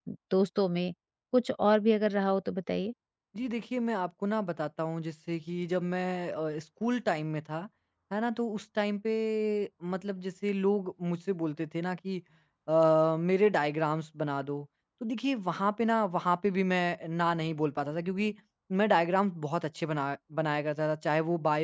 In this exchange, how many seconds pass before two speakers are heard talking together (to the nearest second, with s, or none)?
none